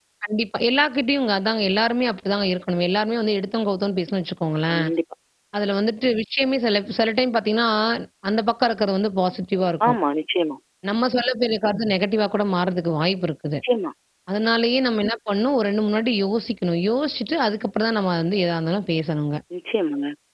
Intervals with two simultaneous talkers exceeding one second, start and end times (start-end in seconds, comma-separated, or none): none